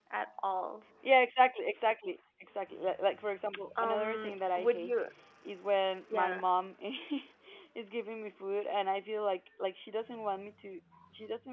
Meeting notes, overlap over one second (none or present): present